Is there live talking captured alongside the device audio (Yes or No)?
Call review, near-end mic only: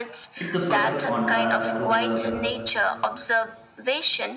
Yes